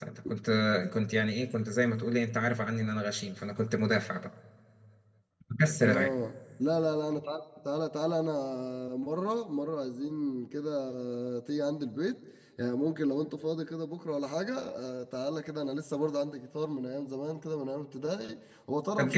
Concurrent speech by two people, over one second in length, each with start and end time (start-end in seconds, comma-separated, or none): none